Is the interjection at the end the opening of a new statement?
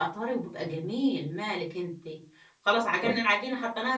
No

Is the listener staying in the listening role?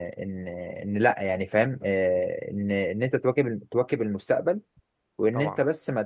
Yes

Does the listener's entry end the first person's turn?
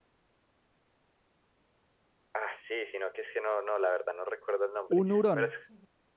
No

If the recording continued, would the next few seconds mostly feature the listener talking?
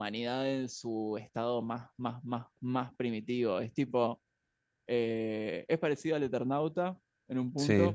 No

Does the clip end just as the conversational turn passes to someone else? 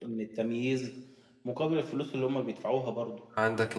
Yes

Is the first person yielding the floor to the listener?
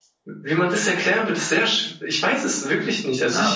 Yes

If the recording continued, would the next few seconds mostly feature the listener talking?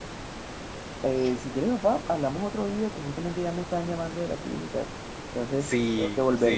Yes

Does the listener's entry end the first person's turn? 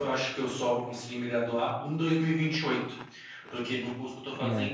No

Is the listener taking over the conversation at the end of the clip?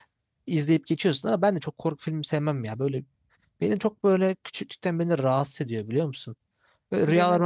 No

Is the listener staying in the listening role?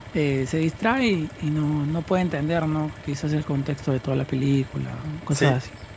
No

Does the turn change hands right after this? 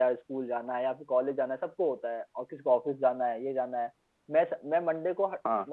No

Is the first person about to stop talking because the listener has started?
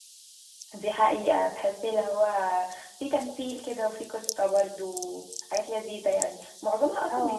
No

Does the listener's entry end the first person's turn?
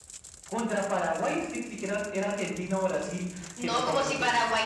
Yes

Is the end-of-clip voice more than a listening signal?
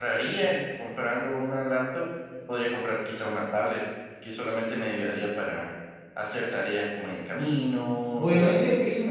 Yes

